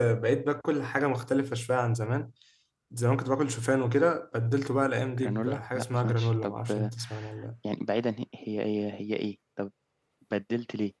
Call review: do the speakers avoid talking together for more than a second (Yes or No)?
No